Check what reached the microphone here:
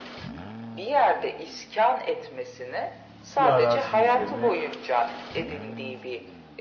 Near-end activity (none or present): present